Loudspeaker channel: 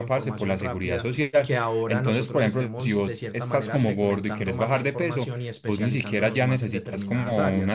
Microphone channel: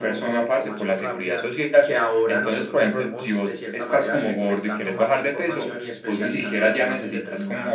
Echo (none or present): present